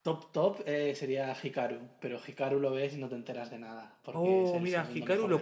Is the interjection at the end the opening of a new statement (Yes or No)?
Yes